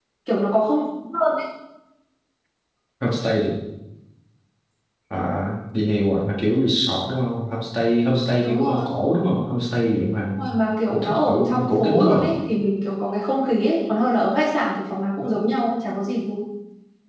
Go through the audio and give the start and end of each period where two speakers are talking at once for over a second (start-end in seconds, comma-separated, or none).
10.9-12.2